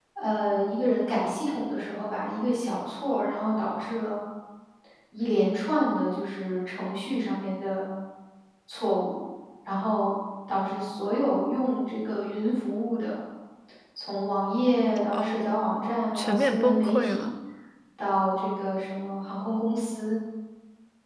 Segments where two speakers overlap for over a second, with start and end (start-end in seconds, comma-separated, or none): 15.2-17.2